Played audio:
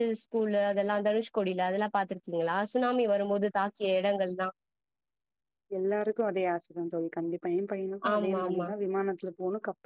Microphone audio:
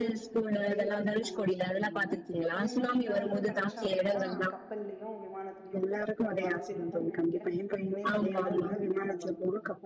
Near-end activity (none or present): present